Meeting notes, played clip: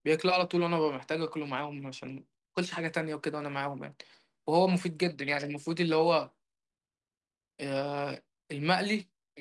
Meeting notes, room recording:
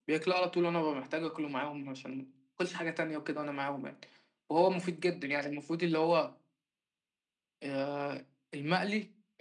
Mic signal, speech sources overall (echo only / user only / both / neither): echo only